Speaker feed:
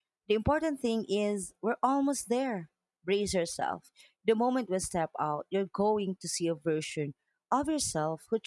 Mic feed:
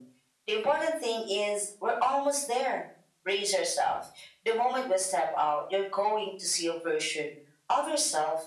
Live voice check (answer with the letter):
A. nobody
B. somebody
A